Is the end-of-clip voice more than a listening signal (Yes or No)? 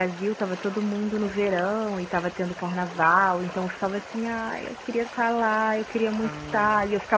No